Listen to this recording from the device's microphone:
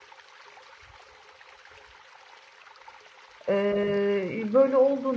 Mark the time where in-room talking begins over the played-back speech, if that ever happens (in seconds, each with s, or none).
3.5 s